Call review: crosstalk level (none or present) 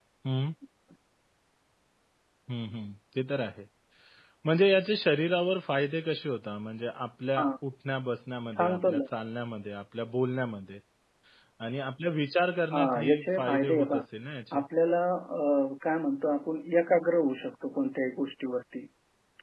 present